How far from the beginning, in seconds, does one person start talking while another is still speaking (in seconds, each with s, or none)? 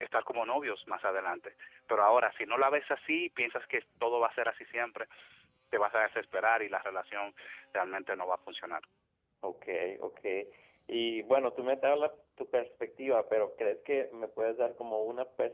none